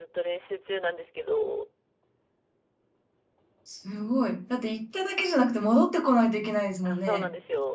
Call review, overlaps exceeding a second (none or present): none